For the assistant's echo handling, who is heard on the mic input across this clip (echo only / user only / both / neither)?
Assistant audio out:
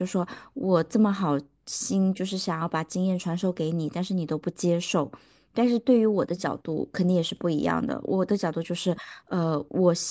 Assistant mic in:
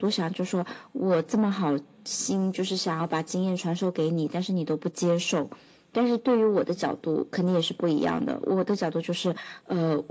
echo only